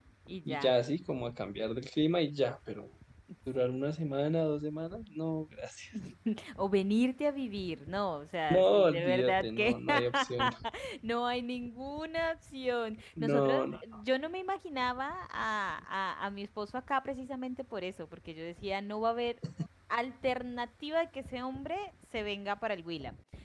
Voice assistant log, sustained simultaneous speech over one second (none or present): present